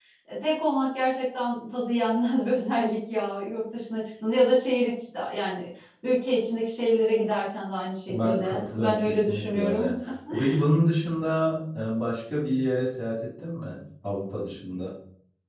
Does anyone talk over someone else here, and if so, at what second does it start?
8.1 s

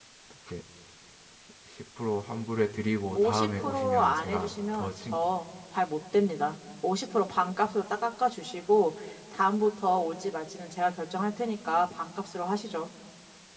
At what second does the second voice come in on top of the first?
3.1 s

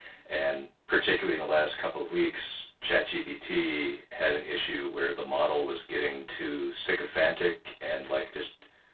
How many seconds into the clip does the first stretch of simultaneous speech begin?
none

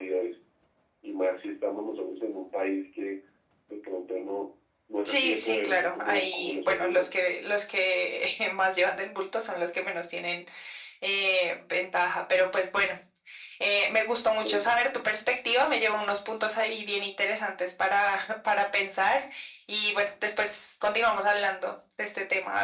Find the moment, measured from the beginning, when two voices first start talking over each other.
5.0 s

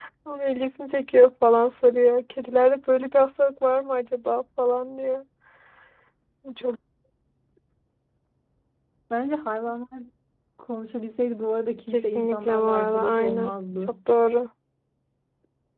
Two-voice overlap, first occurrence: 11.9 s

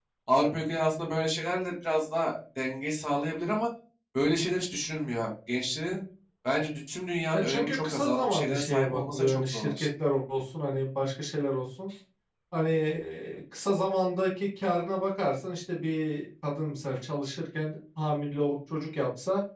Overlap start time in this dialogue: 7.3 s

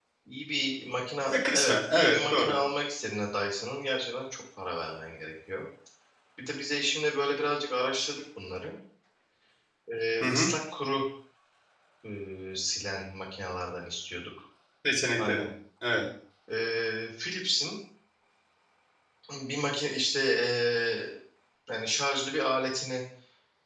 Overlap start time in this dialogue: 1.3 s

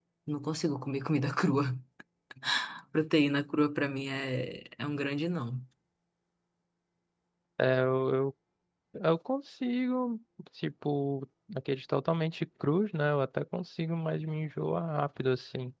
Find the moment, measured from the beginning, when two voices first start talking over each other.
none

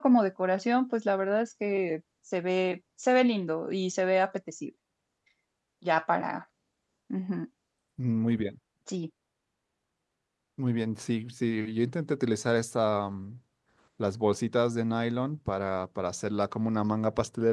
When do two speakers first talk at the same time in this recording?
none

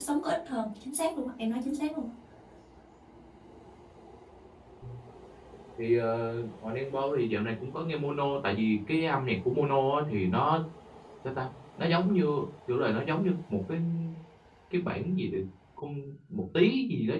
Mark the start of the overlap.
none

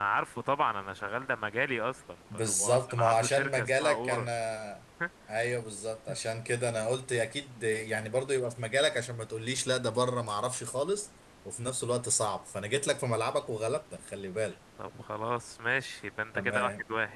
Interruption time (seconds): 2.3 s

